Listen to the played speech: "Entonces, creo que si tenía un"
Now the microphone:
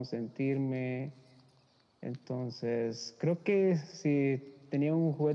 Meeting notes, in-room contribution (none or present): none